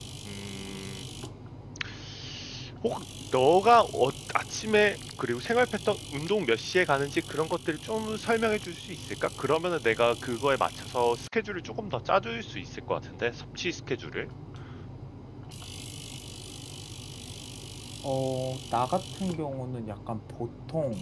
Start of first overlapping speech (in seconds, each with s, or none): none